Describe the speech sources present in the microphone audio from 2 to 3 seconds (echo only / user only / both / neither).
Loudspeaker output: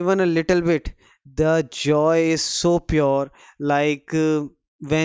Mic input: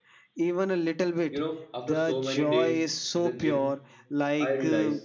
both